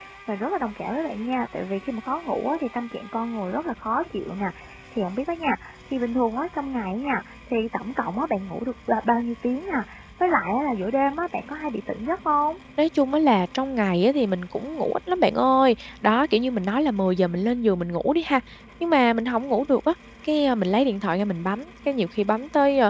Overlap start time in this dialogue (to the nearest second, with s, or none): none